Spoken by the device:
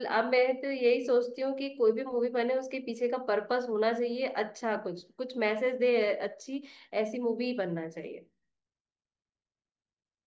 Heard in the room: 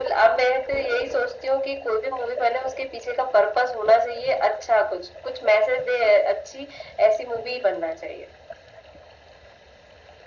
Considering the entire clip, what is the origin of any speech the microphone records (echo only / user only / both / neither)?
echo only